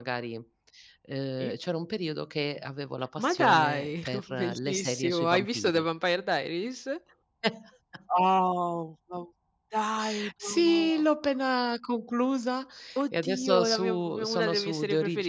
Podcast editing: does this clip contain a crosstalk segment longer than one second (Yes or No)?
Yes